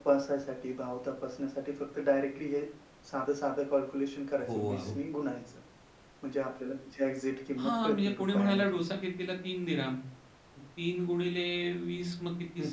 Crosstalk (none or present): present